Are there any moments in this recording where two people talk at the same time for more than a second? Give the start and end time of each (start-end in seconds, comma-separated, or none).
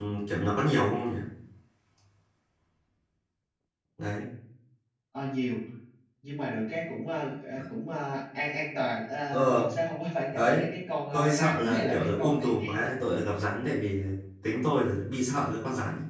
11.1-12.9